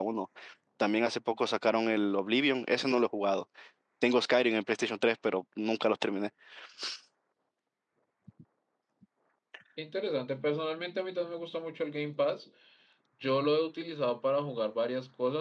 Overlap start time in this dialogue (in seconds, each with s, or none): none